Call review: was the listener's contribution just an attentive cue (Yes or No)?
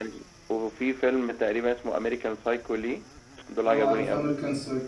No